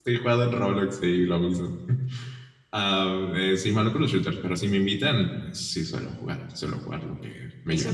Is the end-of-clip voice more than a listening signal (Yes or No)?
Yes